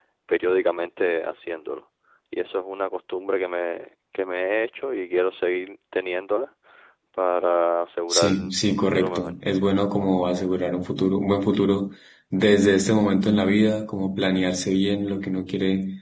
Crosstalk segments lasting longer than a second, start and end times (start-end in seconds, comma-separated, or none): 8.1-9.3